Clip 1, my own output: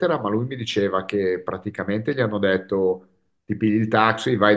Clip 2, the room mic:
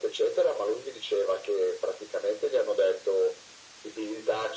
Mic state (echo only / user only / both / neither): echo only